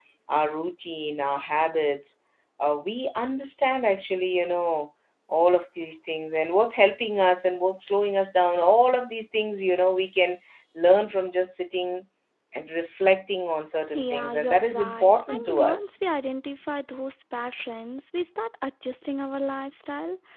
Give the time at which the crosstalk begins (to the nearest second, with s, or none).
14 s